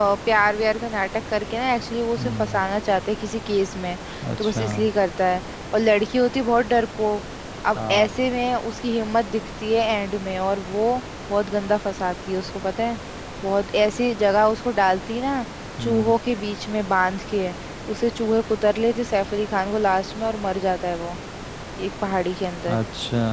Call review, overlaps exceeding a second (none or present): none